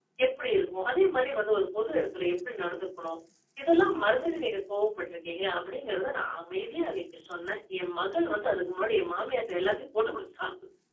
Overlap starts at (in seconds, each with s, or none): none